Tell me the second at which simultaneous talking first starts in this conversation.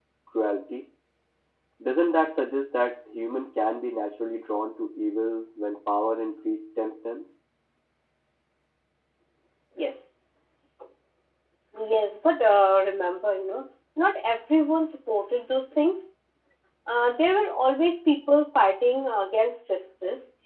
none

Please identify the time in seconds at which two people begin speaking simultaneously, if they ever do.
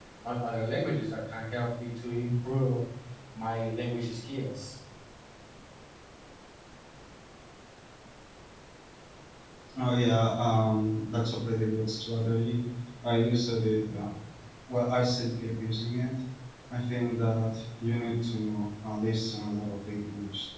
none

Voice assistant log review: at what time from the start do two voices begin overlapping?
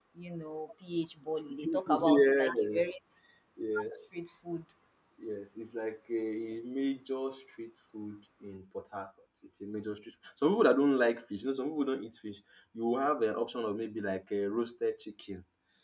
1.6 s

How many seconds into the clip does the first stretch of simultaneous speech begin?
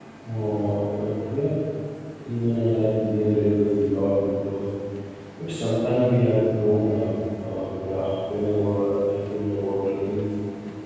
none

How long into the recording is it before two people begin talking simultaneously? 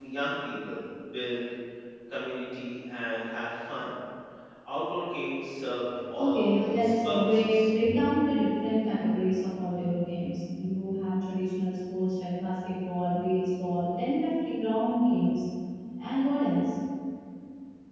6.1 s

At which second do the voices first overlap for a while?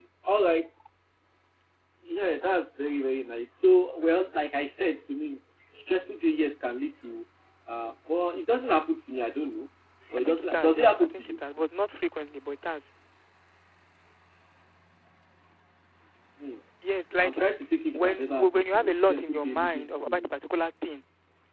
10.2 s

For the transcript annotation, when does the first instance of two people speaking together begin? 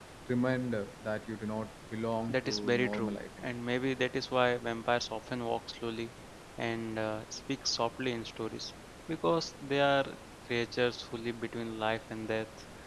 2.3 s

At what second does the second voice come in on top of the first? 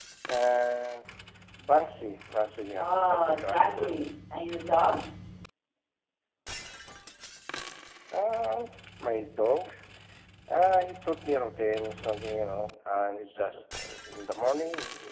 2.7 s

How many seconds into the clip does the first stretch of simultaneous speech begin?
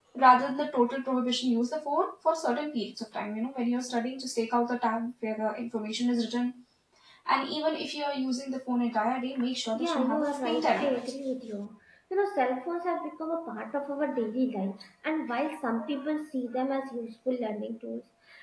9.8 s

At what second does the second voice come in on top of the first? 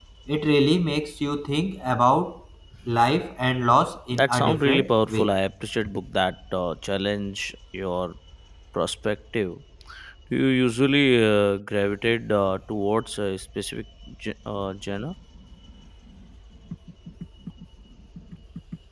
4.1 s

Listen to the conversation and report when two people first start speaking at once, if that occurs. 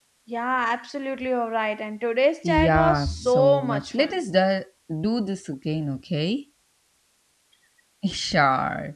2.4 s

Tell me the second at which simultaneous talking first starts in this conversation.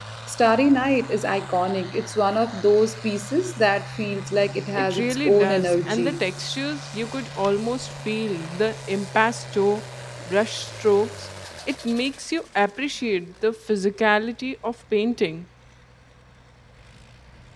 4.8 s

